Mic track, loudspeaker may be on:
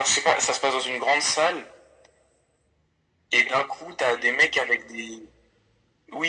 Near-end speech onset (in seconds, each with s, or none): none